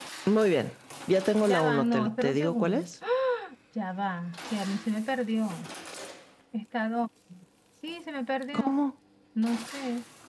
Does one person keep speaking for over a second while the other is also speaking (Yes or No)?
Yes